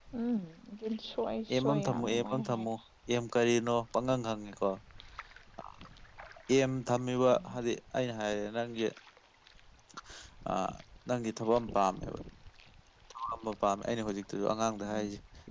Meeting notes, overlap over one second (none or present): present